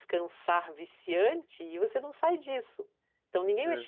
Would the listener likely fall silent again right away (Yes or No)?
Yes